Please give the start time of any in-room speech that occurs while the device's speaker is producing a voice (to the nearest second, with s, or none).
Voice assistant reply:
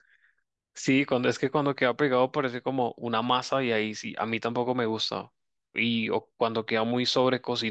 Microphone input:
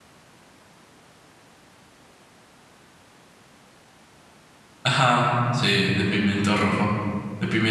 5 s